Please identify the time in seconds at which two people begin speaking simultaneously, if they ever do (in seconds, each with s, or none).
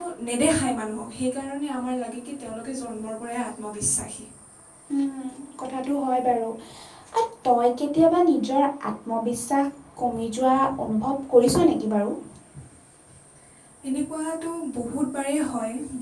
none